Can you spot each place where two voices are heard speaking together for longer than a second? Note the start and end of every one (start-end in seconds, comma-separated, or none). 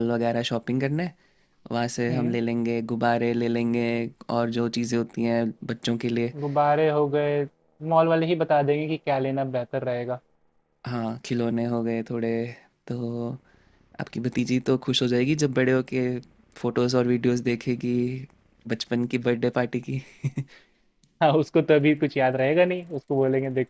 none